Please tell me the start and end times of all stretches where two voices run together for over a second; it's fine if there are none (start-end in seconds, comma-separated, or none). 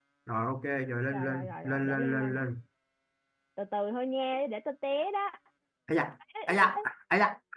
1.1-2.4